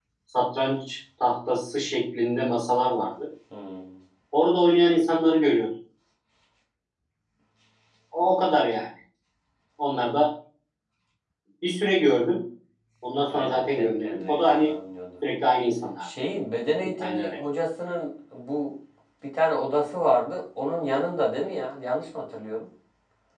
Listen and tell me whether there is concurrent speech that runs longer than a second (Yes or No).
Yes